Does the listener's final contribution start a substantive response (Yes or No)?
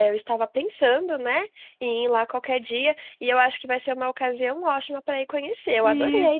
Yes